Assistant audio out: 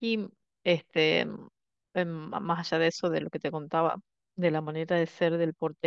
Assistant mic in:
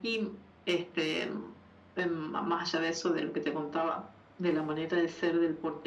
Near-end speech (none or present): none